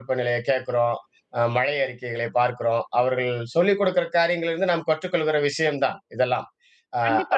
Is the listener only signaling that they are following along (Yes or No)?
No